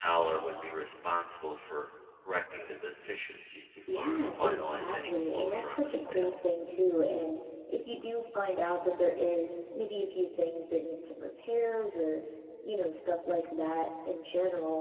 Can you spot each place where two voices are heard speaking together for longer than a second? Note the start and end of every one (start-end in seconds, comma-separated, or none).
3.9-6.3